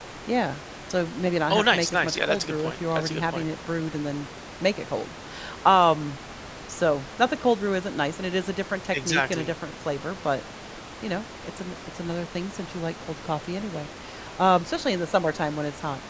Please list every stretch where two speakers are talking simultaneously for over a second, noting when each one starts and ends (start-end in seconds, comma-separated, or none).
1.5-3.4